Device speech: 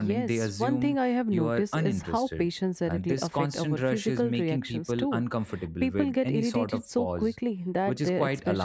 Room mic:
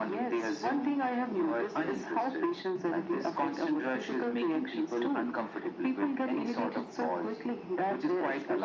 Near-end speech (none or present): none